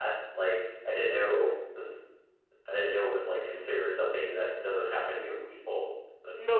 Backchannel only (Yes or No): No